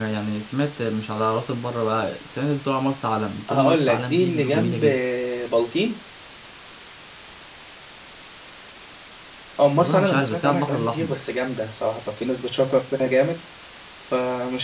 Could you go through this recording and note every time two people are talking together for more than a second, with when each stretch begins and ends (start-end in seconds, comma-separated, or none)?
3.5-4.8, 9.8-11.2